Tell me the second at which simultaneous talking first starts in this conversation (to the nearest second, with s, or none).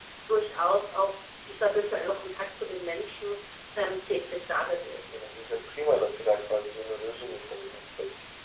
none